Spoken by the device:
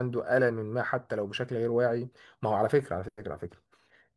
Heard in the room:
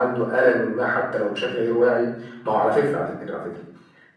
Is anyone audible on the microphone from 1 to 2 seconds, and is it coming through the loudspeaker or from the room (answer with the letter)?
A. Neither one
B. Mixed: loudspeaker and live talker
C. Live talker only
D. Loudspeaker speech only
D